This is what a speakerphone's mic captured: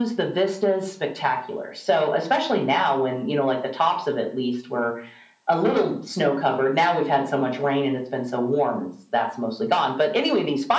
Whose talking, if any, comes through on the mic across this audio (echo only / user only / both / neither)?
echo only